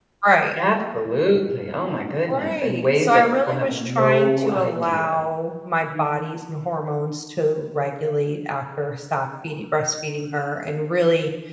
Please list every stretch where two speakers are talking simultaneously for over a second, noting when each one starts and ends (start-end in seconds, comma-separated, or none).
2.3-5.2